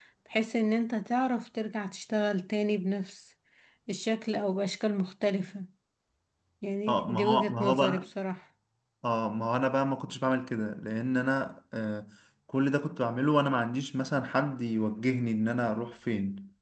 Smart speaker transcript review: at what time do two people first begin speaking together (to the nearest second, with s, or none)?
7 s